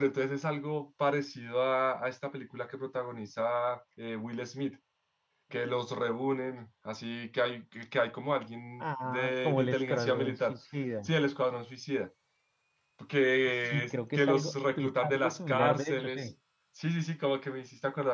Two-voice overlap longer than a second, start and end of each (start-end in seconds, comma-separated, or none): 8.8-10.6, 13.6-16.3